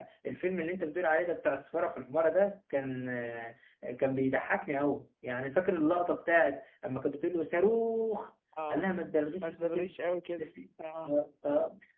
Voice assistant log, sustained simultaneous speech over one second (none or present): none